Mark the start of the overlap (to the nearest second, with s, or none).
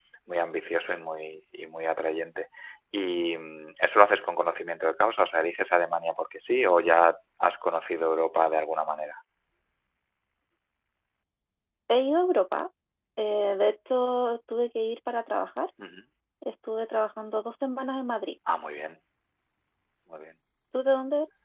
none